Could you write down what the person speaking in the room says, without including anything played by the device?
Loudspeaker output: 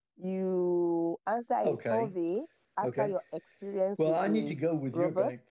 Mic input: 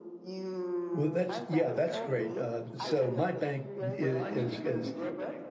Well, that's yeah, that's great. Uh, so my bank is, is is

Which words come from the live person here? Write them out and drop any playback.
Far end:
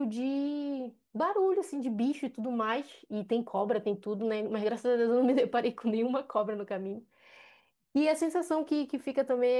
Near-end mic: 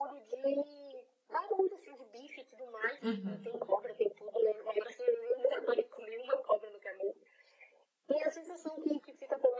Uhum,

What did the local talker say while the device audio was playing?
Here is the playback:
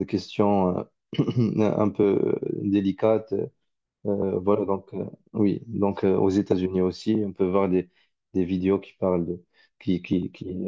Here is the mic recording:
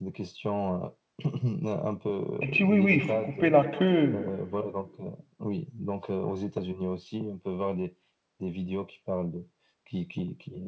Elle dit, oui, oui, il faut couper la queue.

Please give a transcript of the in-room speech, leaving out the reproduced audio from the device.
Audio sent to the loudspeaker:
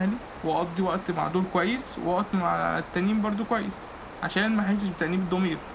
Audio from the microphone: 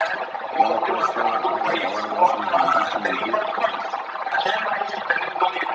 اللي أنا كويس فيها مع أهلي أو أنا مثلا ما بنزلش من البيت

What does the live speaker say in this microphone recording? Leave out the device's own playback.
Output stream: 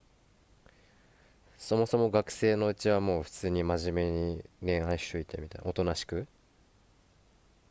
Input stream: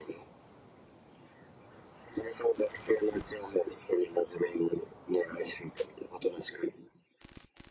none

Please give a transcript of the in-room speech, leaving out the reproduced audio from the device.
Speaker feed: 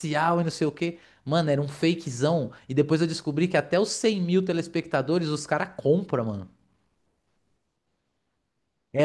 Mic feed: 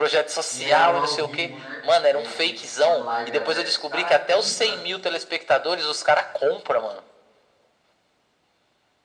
E eram ao vivo, né? Eles ficam com uma live aberta. Os caras compram

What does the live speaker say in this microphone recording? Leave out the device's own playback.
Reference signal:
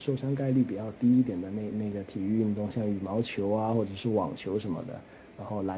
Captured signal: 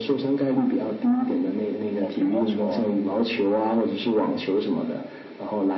哦，乒乓球啊，

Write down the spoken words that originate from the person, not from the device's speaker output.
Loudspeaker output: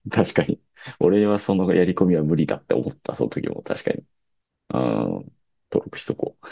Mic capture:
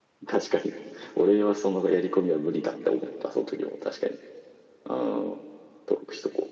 none

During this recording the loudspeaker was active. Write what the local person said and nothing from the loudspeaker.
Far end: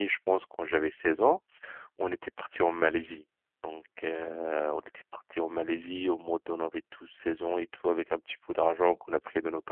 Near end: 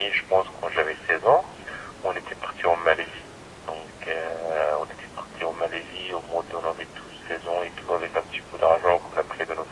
none

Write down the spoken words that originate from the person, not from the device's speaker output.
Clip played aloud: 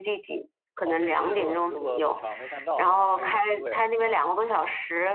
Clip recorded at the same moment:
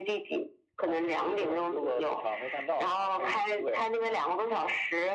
none

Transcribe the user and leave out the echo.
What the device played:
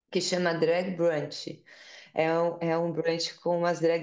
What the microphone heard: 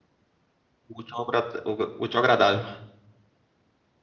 o útil ao agra- o- o útil ao agradável.

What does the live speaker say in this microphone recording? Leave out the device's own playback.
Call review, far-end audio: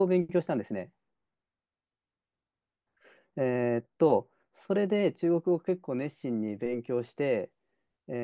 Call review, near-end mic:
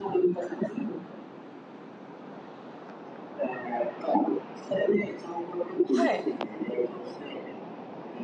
はい。

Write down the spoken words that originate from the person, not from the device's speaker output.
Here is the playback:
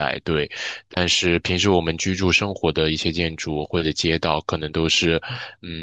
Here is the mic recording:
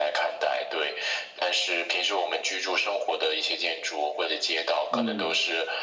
嗯。

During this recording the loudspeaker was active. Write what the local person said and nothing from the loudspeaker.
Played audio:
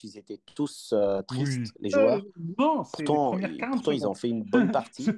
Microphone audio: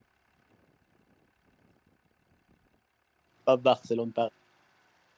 pas Barcelone, Paris.

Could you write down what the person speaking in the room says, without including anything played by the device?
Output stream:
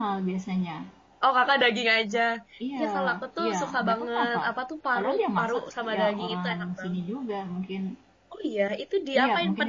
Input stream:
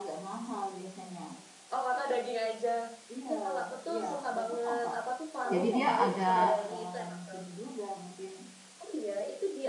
Jadi dia agak

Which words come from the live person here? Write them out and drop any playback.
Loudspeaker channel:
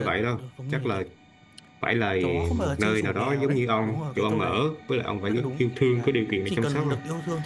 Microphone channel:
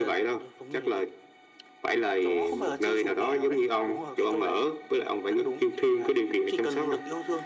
none

